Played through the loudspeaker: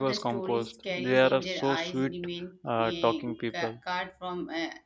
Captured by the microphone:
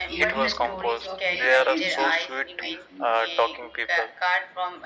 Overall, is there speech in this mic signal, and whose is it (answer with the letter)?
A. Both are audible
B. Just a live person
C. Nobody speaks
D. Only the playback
A